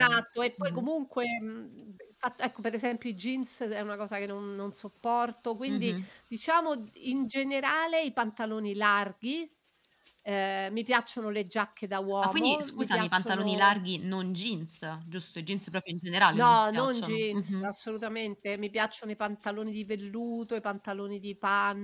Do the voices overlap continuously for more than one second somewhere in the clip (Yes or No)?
Yes